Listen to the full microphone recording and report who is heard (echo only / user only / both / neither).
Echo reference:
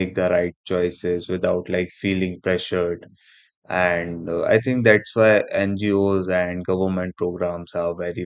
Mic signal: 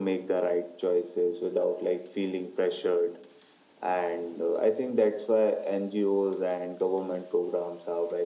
echo only